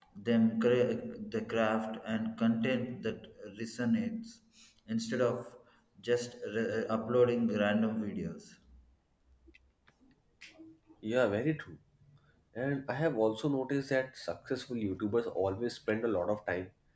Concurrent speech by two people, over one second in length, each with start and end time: none

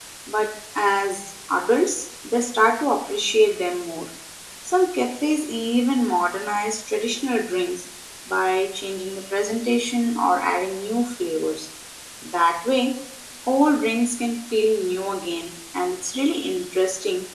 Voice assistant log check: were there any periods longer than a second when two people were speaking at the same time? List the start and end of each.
none

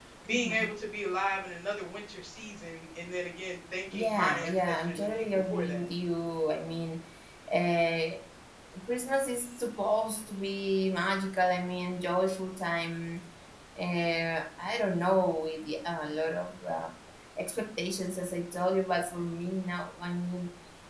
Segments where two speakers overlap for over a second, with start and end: 3.9-5.8

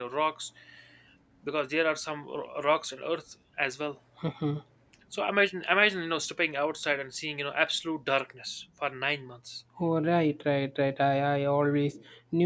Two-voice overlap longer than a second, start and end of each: none

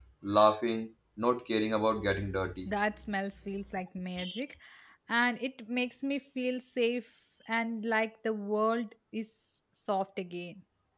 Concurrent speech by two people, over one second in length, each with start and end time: none

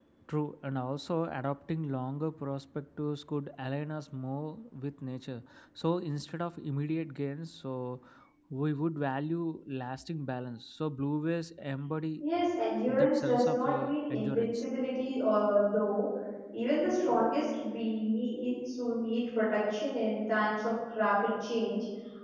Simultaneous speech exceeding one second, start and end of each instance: 12.9-14.6

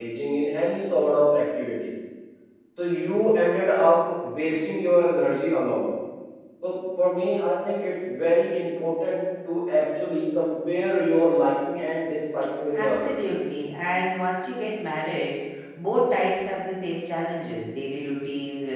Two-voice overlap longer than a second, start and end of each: none

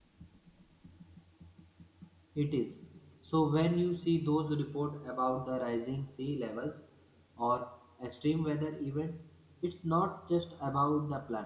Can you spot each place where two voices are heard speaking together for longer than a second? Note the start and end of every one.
none

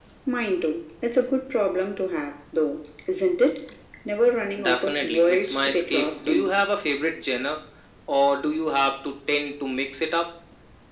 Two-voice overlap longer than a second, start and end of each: 4.6-6.5

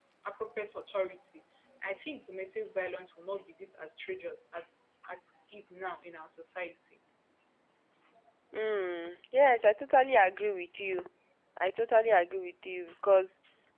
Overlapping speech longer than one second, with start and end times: none

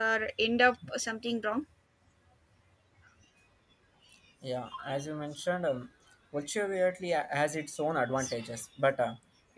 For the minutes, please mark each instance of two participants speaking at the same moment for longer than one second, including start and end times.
none

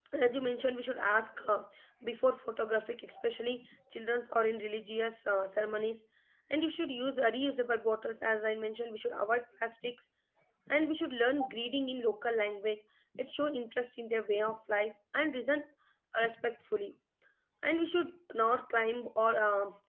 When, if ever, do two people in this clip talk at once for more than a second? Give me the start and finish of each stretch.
none

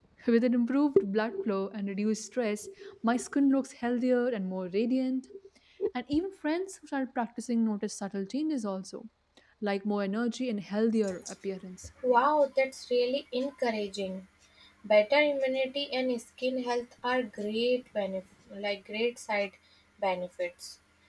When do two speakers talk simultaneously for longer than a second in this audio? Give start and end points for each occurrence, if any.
none

